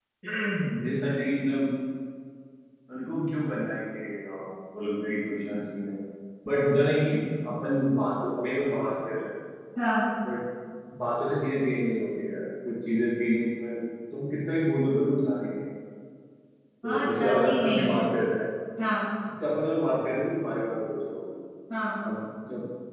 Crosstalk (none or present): present